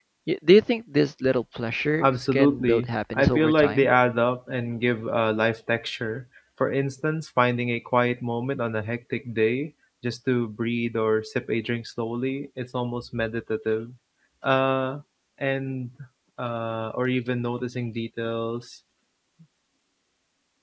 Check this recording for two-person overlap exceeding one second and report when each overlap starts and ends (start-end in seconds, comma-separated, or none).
2.0-3.9